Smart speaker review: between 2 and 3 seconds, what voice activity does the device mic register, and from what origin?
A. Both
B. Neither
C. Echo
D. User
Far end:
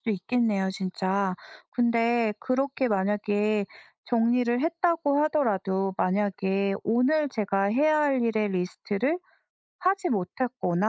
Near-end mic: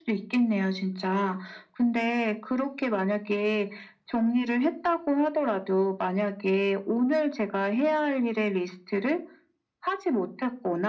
C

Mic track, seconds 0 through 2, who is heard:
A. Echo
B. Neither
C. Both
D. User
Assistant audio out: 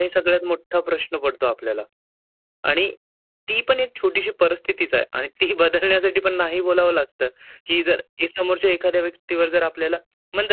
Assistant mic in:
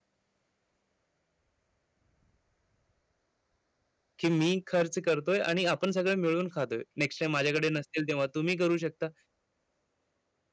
B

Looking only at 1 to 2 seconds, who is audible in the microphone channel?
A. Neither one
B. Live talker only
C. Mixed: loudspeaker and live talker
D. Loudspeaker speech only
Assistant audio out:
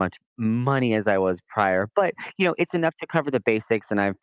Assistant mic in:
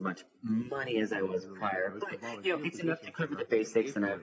C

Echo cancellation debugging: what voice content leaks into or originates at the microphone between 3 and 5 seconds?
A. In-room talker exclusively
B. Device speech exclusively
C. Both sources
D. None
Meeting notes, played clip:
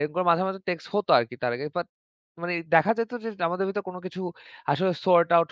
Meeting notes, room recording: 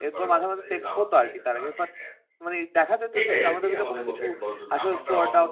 C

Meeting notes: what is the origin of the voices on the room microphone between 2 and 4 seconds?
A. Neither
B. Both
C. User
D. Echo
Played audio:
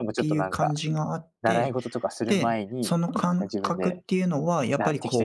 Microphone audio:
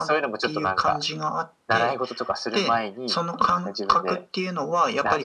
D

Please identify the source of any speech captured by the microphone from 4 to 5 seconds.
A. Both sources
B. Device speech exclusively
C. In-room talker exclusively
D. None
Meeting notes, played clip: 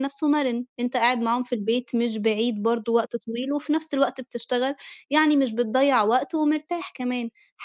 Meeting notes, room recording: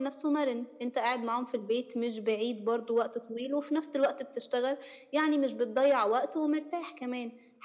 B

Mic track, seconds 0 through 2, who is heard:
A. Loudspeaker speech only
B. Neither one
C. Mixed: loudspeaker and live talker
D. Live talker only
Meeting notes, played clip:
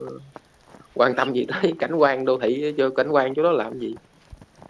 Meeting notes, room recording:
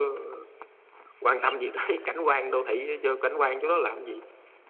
A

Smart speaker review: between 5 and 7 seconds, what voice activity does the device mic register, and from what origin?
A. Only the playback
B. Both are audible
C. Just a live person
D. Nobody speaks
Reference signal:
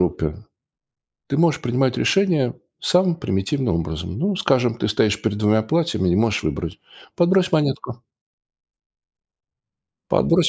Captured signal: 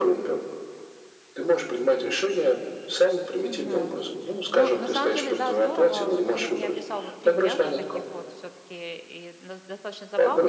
B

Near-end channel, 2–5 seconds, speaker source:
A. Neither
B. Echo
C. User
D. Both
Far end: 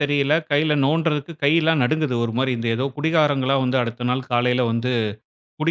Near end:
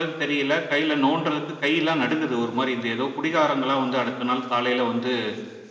B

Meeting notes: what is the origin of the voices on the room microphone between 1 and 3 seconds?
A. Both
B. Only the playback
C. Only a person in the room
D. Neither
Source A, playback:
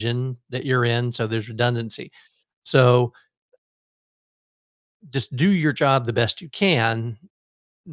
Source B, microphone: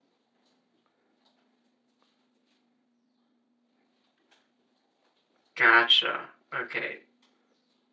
D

